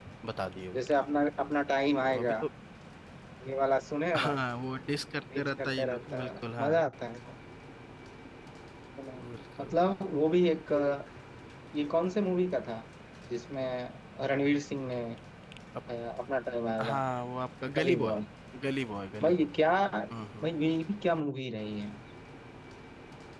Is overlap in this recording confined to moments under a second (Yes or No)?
No